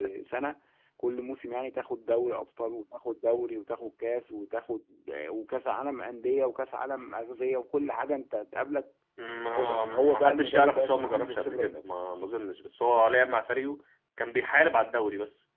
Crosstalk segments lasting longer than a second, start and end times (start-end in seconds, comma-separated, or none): 9.4-11.8